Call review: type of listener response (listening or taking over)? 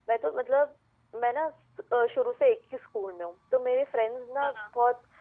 listening